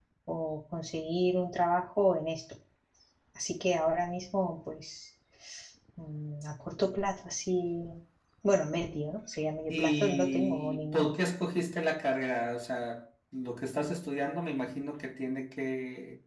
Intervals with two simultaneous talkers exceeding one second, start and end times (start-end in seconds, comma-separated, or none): 9.7-11.1